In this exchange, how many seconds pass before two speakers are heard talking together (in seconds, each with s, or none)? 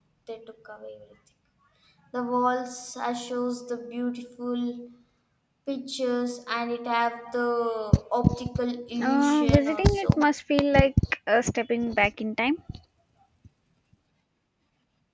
9.0 s